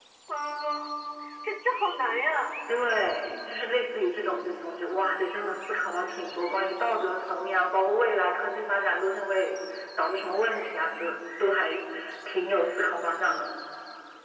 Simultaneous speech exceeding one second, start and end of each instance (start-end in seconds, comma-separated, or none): none